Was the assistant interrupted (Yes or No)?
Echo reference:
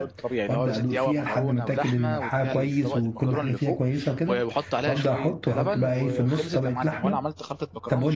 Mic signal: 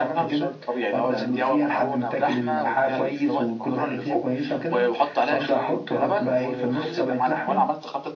No